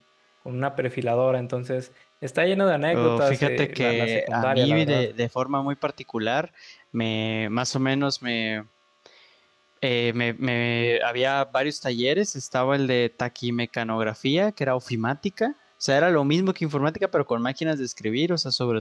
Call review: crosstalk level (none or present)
present